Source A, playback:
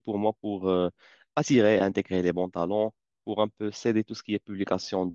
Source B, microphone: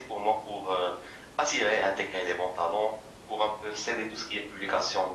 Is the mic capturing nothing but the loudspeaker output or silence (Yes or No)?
Yes